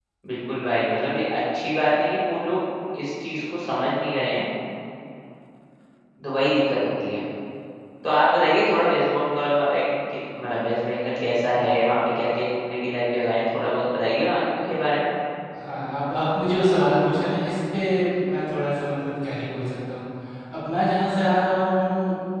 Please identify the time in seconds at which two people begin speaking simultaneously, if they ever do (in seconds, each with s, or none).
none